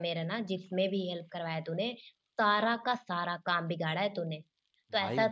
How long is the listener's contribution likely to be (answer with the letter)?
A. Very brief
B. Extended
A